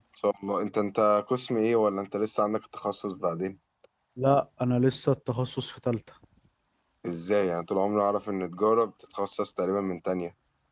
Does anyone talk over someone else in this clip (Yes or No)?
No